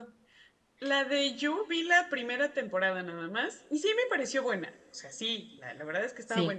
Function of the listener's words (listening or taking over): listening